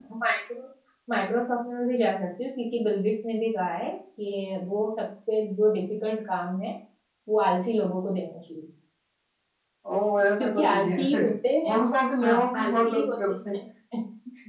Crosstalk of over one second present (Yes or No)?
Yes